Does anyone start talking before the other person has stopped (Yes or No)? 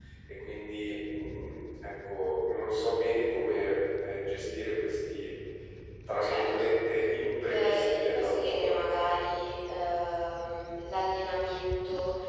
Yes